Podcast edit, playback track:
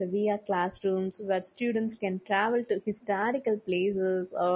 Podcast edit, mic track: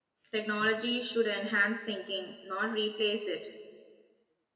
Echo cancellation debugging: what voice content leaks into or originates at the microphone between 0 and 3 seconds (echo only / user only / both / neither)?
user only